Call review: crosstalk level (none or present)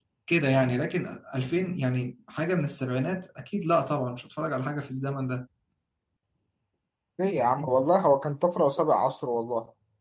none